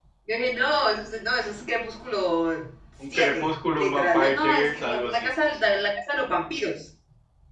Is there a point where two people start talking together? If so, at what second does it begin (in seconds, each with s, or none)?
3.0 s